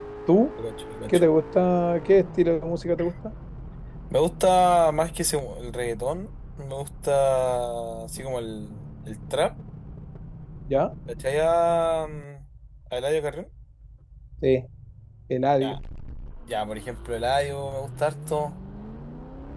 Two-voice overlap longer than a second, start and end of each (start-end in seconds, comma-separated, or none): none